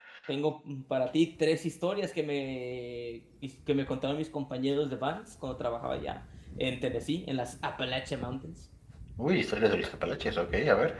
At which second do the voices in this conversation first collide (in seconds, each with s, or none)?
none